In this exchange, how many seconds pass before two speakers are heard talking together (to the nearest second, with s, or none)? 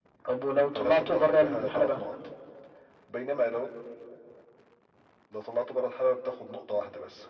1 s